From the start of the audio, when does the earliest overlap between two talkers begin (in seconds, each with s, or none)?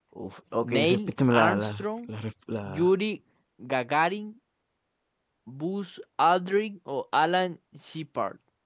0.6 s